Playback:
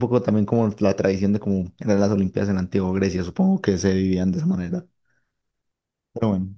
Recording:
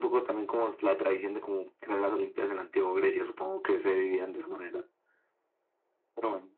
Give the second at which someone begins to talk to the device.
none

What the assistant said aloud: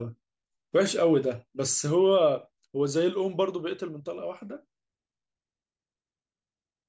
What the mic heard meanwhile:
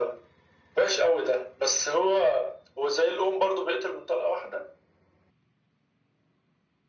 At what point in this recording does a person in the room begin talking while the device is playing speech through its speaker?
none

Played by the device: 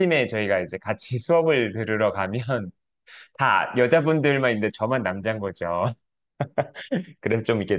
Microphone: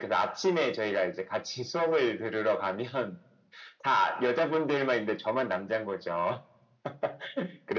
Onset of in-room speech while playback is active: none

